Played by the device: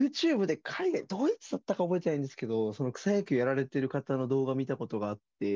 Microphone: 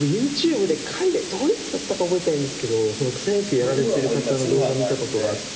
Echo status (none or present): present